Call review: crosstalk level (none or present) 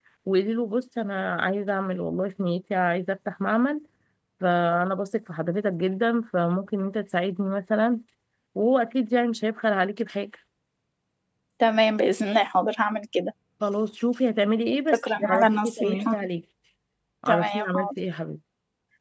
present